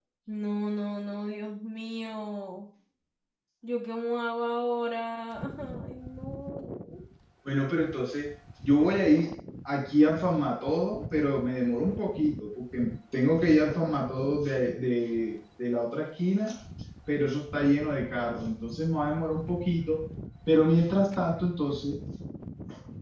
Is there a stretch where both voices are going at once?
No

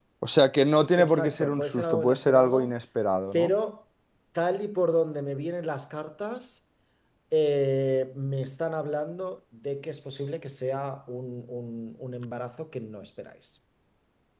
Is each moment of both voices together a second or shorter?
No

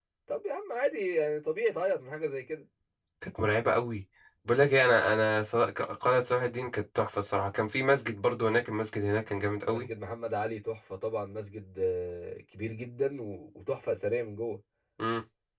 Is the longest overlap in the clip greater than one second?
No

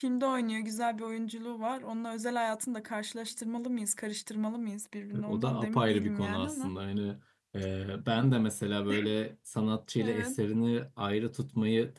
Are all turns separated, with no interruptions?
No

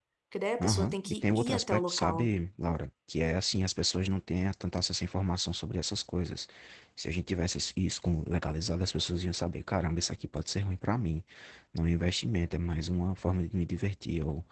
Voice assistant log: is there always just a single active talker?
No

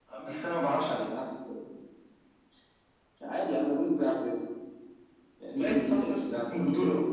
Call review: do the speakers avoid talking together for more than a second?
No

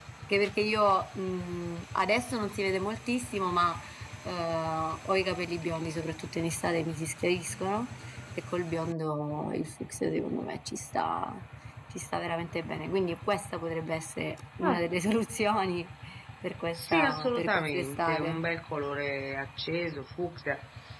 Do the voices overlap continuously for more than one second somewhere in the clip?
Yes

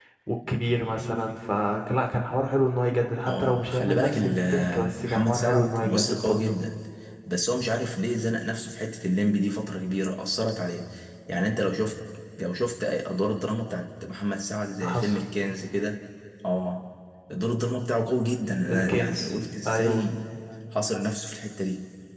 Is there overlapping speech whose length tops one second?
Yes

